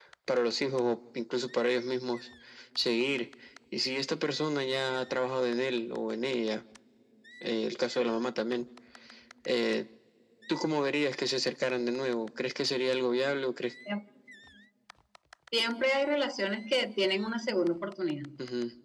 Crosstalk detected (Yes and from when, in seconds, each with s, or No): No